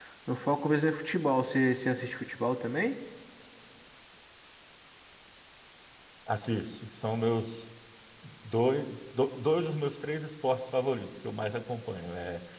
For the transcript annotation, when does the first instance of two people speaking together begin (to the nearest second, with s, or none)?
none